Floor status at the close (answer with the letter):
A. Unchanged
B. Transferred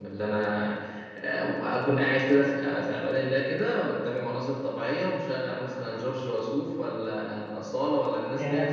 A